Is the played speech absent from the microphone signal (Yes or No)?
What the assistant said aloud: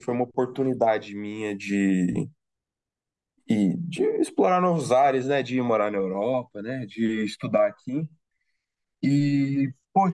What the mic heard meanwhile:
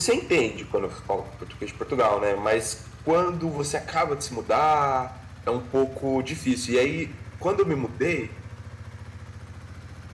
Yes